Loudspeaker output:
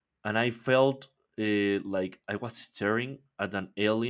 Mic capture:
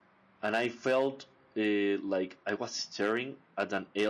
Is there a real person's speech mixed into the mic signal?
No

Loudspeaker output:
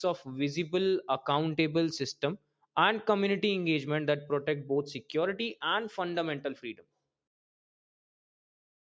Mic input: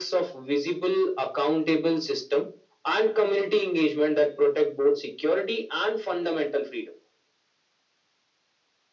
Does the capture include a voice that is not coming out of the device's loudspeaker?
No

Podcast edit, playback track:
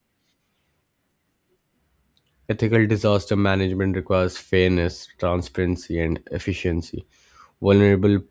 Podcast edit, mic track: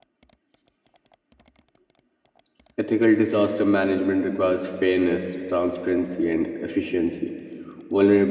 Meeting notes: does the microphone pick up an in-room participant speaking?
No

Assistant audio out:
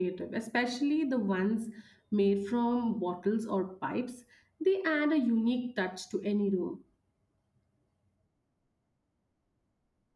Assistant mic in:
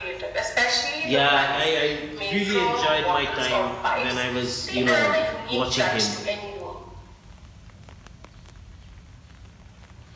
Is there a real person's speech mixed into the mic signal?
Yes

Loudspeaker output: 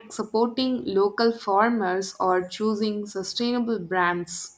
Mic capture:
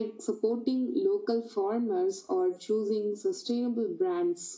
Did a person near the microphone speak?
No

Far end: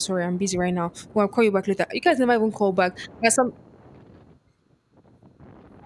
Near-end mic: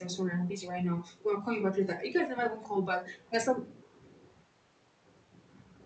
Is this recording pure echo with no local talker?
Yes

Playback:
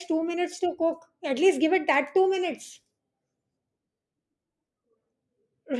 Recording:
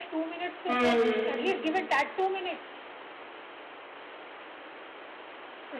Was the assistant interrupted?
Yes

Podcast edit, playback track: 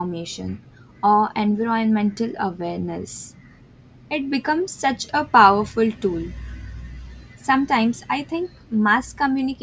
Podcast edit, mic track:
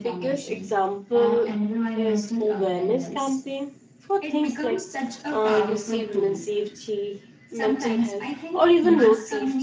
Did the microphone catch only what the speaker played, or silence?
No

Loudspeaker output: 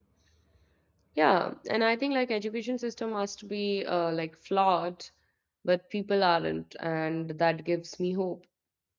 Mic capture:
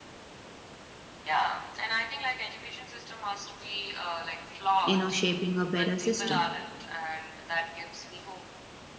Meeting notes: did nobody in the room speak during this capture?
No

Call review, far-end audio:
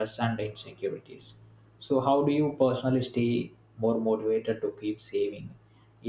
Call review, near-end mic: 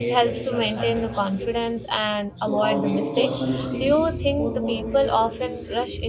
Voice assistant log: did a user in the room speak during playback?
Yes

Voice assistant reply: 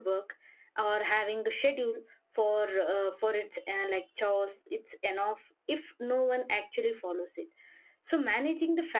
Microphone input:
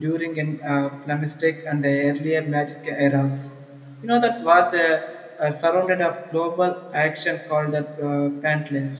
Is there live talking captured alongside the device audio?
Yes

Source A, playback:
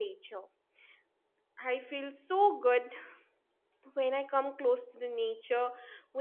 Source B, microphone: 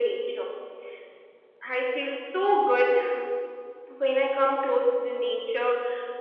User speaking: No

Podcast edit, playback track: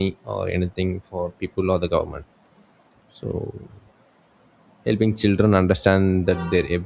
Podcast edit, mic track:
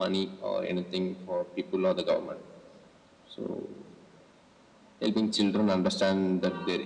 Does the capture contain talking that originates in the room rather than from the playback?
No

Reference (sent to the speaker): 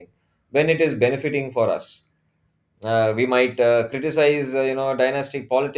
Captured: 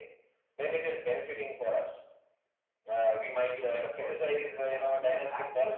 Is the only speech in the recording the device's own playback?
No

